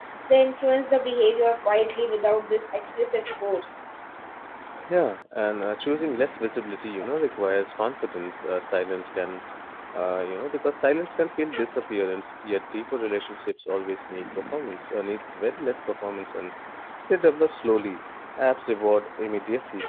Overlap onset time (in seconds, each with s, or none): none